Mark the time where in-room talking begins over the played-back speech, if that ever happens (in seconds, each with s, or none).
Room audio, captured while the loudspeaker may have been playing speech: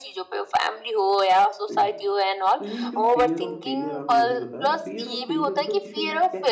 1.7 s